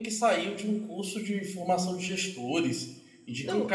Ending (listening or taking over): taking over